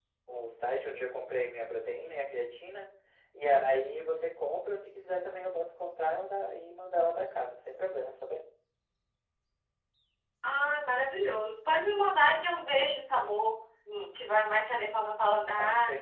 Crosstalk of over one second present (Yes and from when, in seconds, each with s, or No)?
No